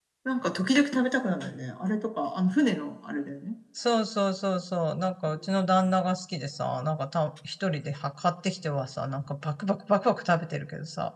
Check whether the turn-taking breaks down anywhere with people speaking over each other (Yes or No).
No